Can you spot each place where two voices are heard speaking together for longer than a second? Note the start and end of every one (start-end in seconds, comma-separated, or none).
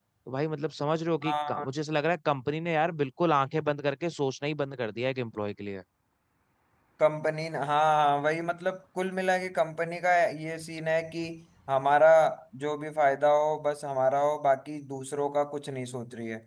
none